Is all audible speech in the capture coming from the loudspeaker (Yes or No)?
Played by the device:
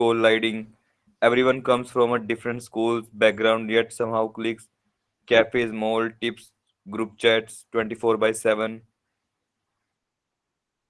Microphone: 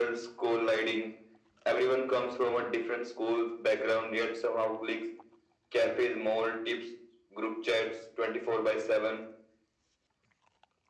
Yes